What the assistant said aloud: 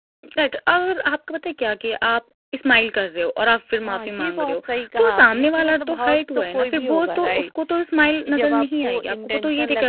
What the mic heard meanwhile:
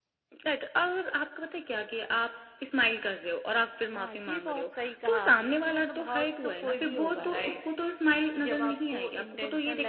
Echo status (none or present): present